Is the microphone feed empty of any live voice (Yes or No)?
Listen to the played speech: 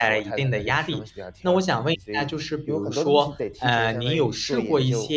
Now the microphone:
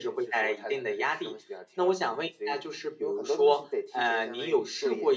Yes